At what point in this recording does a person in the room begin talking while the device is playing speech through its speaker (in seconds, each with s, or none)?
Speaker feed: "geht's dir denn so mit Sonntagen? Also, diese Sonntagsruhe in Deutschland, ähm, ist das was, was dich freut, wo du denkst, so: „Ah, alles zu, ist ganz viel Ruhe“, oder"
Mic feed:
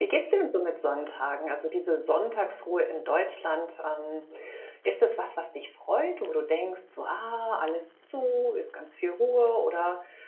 none